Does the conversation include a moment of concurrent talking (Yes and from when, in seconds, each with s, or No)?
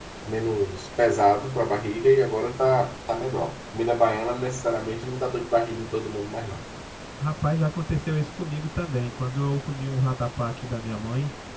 No